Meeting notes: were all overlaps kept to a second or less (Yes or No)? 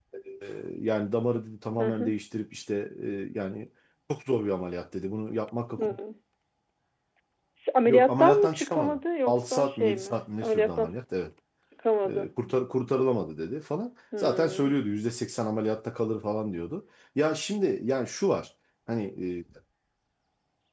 No